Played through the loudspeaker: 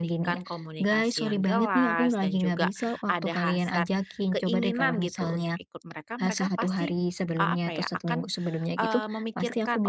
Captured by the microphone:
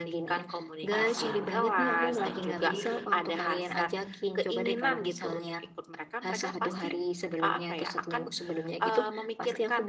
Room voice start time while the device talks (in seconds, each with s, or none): 0.9 s